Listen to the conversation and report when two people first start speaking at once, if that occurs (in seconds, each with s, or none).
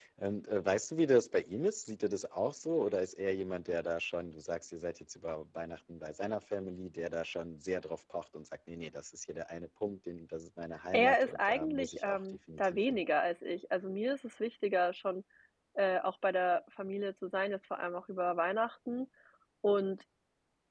10.9 s